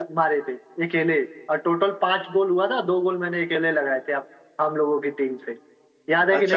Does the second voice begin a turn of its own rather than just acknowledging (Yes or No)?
Yes